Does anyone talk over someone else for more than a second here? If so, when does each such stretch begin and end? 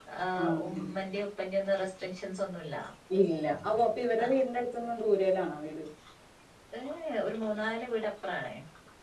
none

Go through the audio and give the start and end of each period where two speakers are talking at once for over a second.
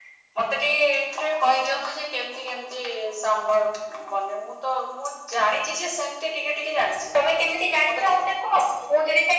none

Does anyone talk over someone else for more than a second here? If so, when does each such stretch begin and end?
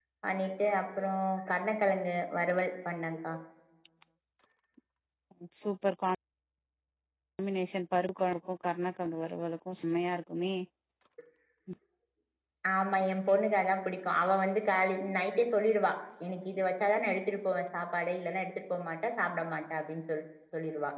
none

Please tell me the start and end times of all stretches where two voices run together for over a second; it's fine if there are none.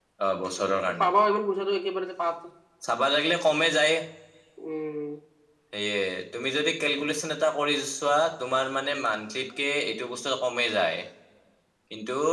none

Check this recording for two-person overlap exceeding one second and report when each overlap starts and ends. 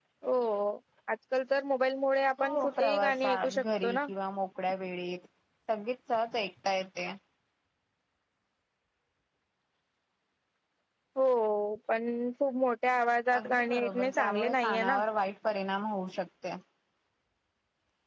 2.4-4.0, 13.4-15.0

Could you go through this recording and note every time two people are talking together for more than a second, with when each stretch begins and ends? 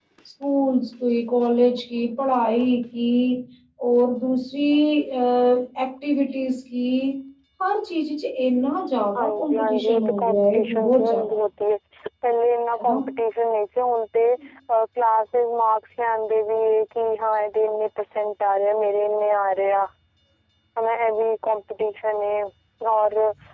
9.2-11.4

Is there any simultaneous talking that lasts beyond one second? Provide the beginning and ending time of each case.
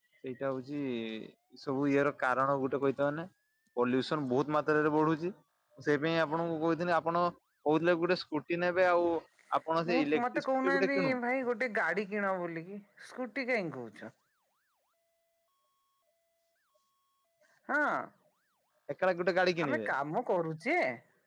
9.9-11.1

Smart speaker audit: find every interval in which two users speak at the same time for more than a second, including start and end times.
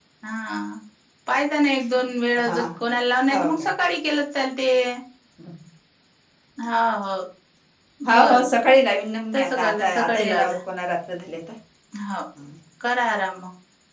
9.3-10.5

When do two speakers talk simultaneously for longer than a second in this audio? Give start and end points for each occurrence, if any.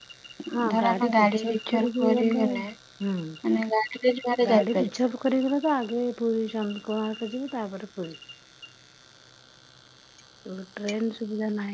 0.7-2.4

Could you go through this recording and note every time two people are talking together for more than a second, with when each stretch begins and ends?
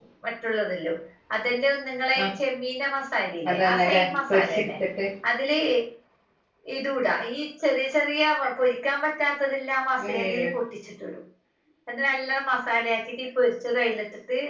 3.5-4.7

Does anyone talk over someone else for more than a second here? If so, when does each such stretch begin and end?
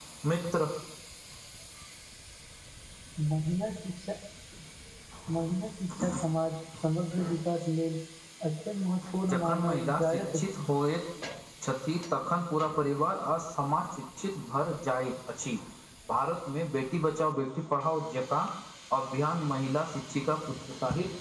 9.3-10.7

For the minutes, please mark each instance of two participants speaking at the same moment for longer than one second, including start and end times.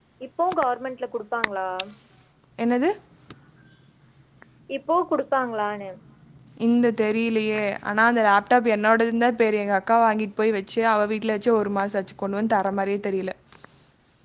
none

